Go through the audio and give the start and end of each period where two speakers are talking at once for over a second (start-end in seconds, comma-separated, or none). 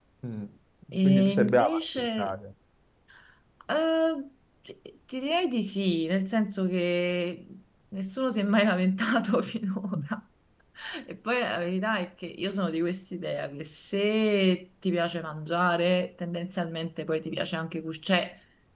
1.0-2.3